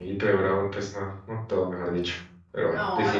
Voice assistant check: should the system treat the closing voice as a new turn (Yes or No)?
Yes